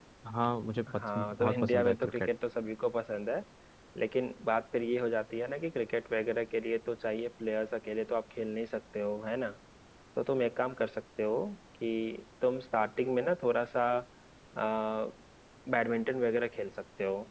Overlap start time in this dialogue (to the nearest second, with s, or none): 1 s